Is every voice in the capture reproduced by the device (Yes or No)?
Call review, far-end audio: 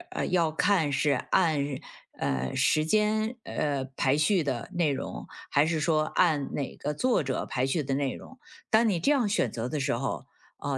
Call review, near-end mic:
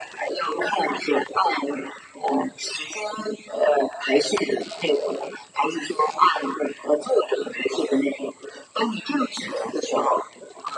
Yes